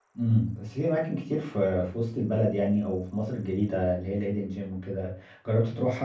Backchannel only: Yes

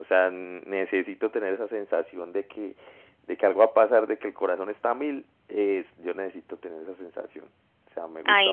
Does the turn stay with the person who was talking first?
No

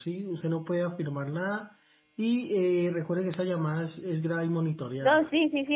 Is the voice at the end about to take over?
Yes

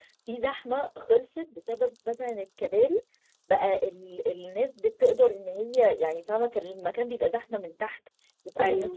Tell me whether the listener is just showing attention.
Yes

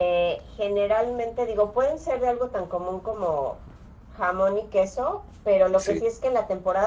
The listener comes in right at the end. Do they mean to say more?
No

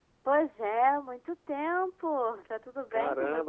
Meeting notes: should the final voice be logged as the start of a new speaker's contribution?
Yes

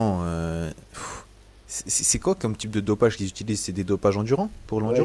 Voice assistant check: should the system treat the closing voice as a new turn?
Yes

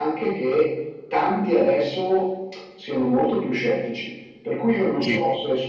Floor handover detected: No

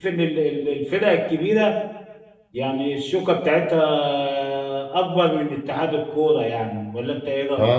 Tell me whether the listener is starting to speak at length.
Yes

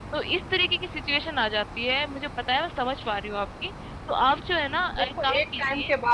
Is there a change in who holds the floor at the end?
Yes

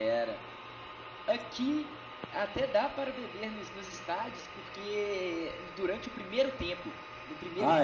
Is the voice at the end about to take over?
No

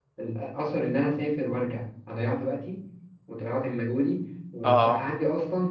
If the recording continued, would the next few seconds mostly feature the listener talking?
No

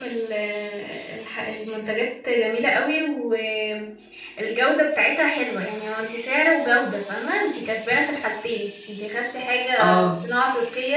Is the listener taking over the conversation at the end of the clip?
No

